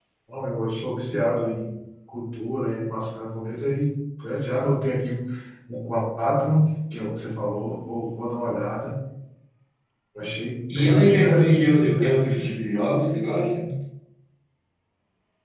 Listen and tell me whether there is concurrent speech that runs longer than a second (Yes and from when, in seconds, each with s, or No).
Yes, from 10.8 s